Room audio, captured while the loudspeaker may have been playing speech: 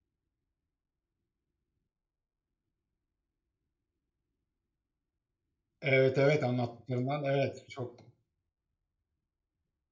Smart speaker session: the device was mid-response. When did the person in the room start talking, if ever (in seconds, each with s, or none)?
5.8 s